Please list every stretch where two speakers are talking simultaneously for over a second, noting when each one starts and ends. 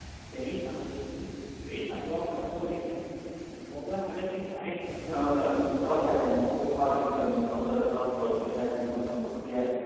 5.1-7.0

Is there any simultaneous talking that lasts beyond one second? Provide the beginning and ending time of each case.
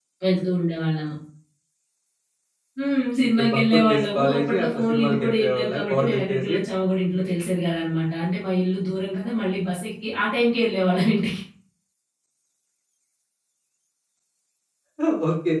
3.4-6.6

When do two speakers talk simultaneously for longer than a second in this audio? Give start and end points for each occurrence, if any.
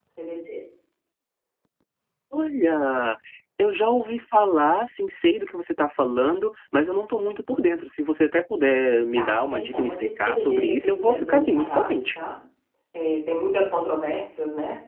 9.1-12.2

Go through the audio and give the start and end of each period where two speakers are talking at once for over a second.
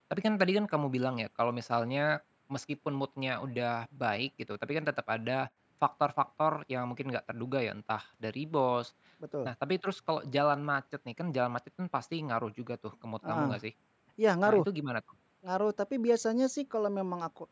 none

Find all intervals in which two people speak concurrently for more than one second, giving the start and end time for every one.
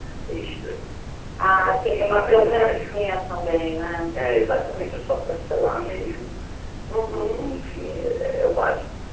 1.4-2.9

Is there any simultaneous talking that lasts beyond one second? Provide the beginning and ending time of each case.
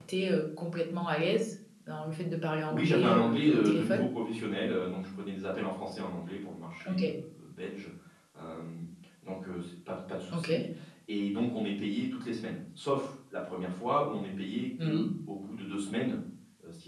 2.7-4.0

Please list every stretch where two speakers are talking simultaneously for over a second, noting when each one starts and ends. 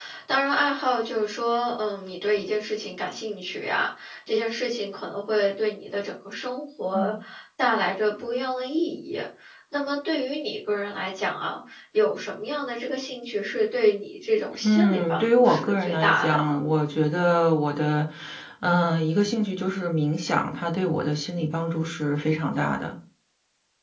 14.6-16.6

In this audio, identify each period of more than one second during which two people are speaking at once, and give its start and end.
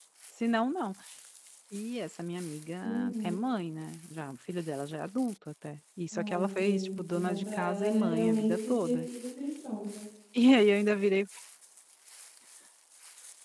6.1-9.0

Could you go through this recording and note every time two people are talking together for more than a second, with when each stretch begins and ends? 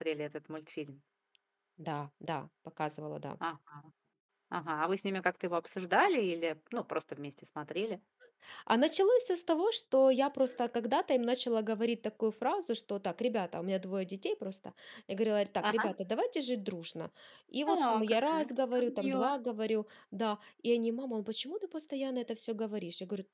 17.7-19.3

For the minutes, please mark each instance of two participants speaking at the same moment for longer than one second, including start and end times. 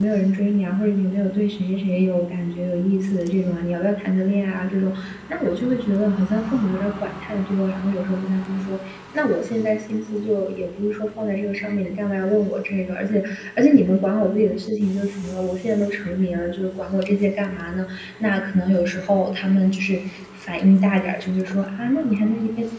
none

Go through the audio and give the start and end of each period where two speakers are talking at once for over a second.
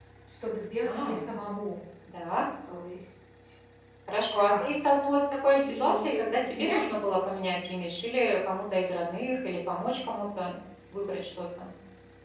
5.6-6.9

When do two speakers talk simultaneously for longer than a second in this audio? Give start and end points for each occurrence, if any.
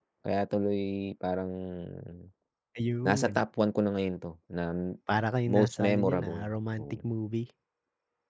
5.5-7.0

